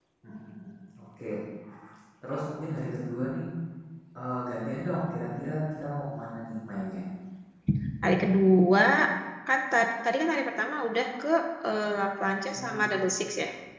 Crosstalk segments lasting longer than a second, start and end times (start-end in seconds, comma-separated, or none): none